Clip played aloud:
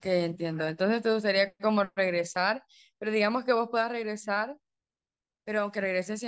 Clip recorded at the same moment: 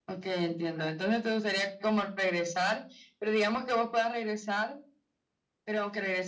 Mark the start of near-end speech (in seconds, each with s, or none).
none